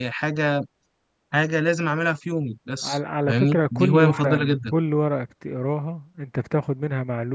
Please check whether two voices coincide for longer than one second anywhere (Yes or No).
Yes